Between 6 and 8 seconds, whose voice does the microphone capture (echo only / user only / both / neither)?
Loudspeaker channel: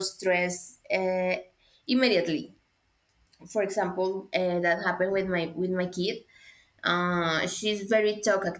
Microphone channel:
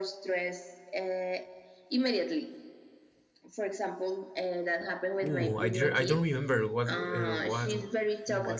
both